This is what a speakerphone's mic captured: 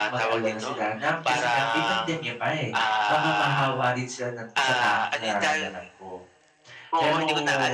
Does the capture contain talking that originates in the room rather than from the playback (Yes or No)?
Yes